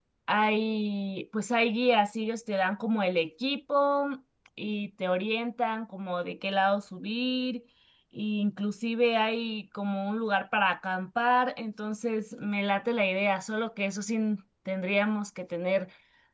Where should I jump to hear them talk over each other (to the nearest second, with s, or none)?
none